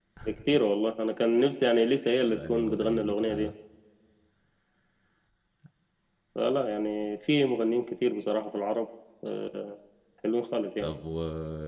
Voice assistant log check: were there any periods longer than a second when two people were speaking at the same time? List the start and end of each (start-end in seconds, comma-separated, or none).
2.3-3.5